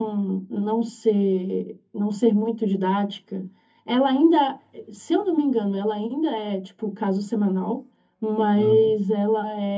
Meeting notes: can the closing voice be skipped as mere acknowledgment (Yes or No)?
Yes